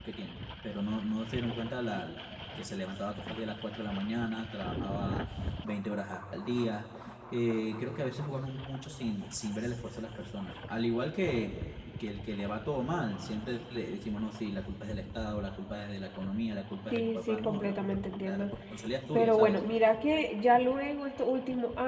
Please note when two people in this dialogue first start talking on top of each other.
16.9 s

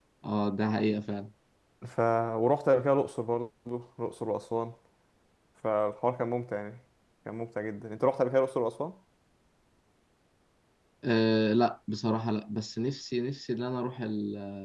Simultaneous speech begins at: none

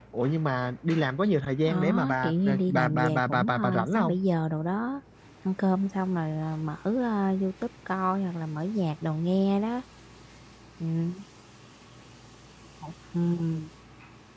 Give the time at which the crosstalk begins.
1.6 s

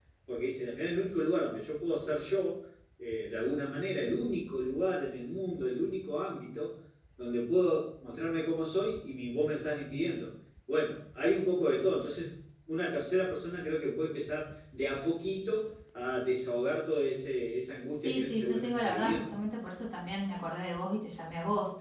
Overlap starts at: 18.0 s

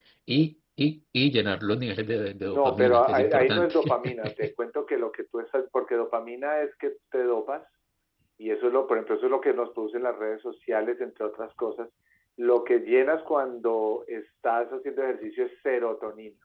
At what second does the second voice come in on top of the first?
2.4 s

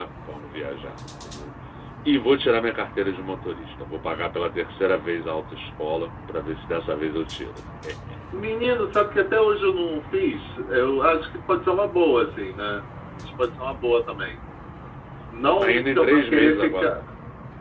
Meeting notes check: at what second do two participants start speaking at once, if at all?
15.4 s

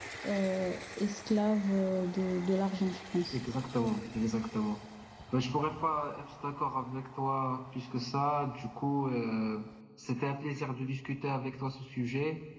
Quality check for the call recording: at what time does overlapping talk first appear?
none

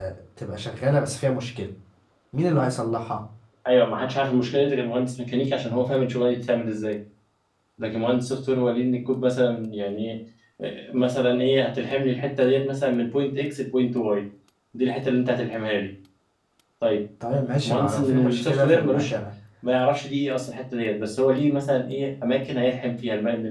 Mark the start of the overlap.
17.6 s

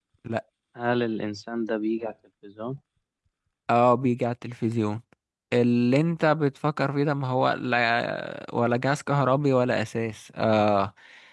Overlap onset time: none

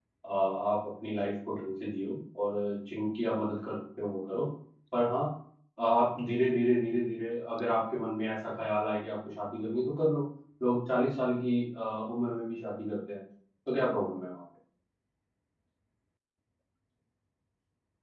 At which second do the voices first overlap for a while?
none

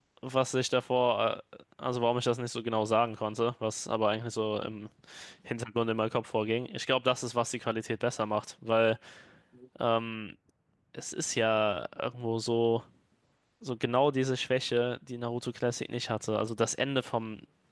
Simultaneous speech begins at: none

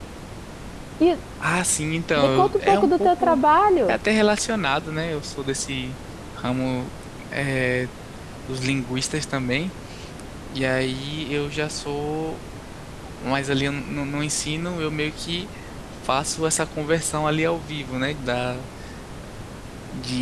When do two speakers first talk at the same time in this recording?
2.2 s

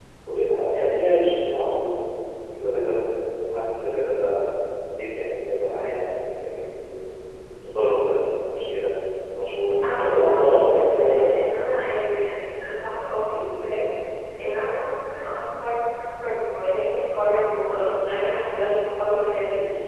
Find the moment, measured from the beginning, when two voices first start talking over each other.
9.8 s

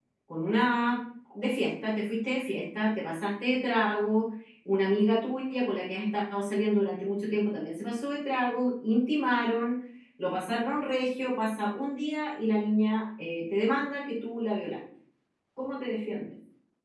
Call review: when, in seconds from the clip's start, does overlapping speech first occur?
none

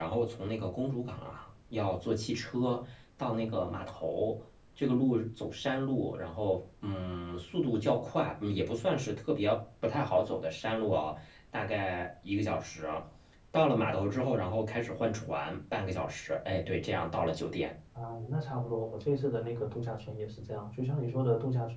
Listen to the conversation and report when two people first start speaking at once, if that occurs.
none

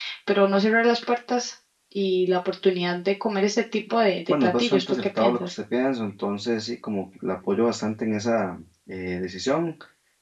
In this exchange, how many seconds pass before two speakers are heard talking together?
4.3 s

